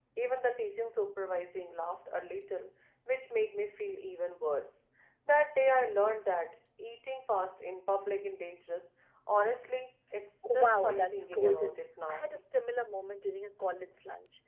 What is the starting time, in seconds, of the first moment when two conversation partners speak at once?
10.4 s

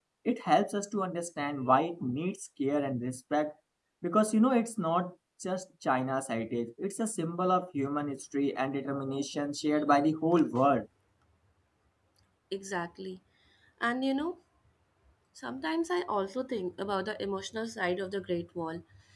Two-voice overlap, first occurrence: none

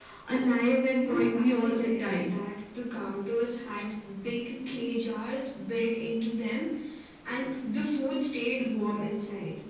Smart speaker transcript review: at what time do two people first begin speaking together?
1.0 s

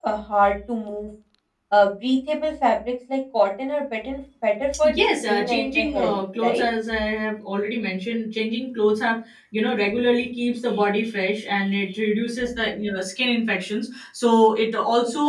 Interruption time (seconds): 4.8 s

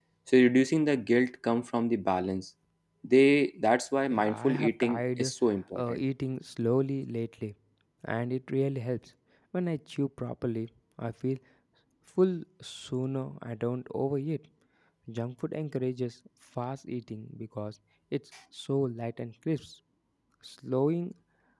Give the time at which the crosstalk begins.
4.1 s

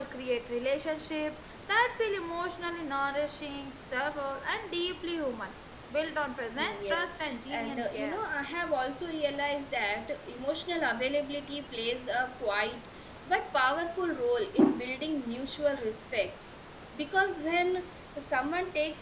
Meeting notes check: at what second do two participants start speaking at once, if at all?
6.6 s

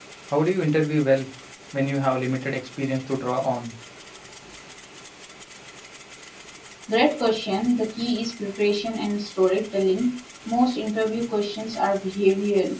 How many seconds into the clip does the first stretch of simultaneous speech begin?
none

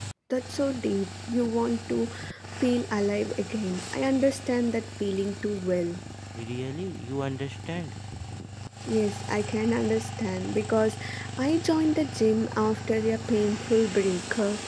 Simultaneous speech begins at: none

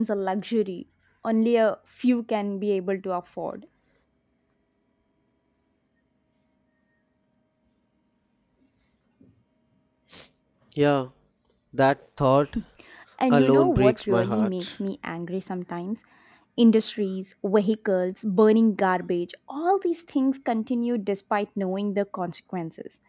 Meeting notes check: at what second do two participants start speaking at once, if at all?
13.3 s

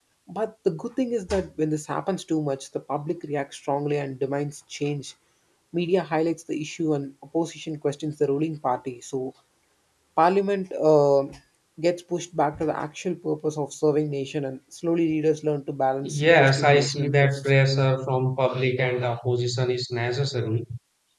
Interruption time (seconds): 16.0 s

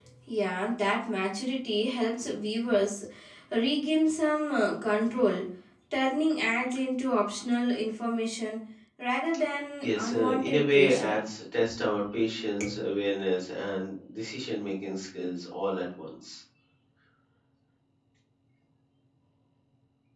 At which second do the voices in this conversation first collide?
9.8 s

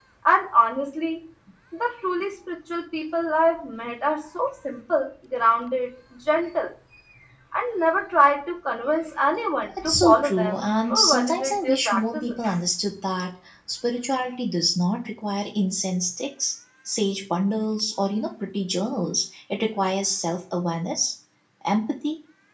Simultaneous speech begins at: 9.7 s

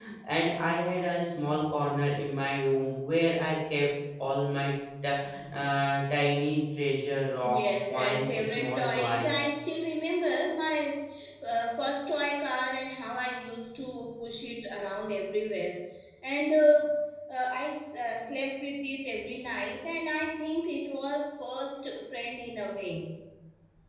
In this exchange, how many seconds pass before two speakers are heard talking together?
7.4 s

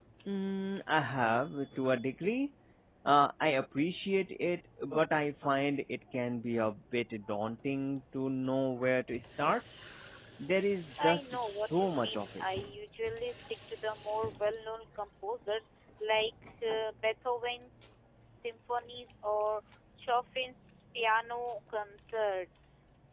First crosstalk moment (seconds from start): 11.0 s

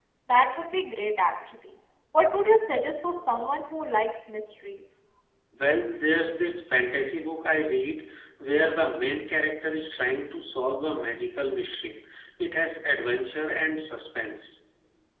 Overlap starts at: none

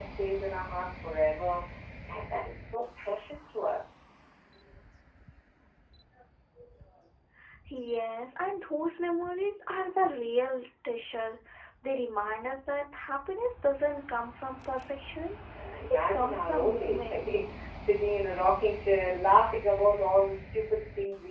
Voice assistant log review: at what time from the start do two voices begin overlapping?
15.9 s

